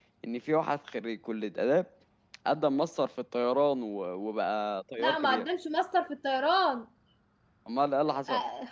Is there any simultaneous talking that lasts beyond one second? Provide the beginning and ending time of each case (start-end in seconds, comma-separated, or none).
none